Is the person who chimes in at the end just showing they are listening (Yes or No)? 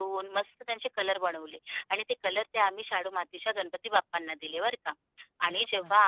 Yes